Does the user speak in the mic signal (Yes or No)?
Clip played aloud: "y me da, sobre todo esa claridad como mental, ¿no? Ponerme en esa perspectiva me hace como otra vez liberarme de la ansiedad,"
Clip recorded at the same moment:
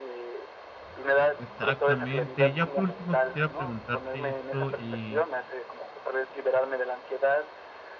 Yes